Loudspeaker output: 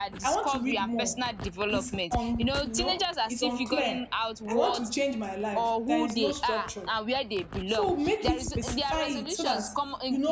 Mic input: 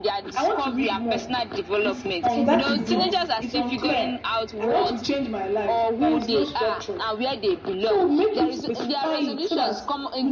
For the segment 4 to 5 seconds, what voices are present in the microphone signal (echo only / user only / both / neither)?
echo only